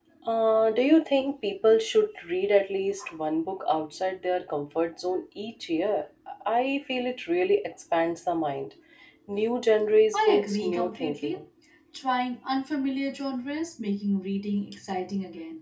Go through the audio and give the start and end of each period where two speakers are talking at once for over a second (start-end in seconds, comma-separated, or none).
10.1-11.4